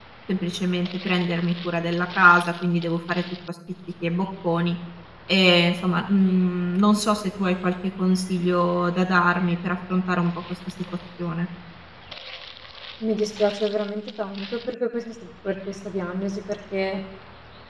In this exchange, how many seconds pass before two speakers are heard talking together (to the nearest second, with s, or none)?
none